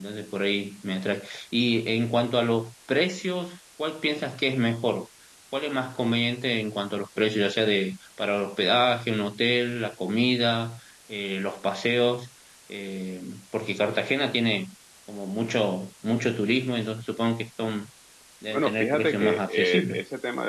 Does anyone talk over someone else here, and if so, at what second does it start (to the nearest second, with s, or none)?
19 s